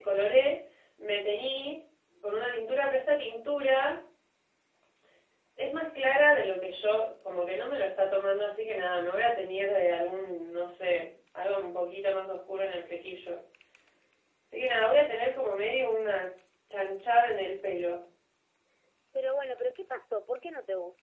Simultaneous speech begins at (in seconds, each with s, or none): none